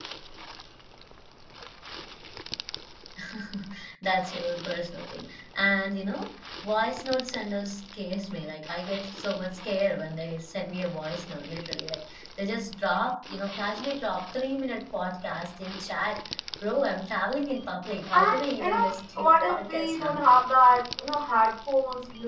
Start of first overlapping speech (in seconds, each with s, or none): 18.1 s